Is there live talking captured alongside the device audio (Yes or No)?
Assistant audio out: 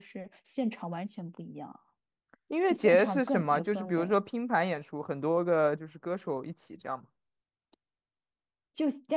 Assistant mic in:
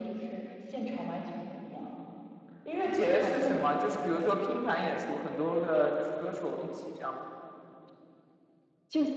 No